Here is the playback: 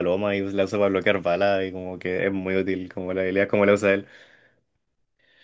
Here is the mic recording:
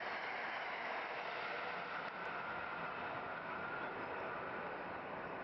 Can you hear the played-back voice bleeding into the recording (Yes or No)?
No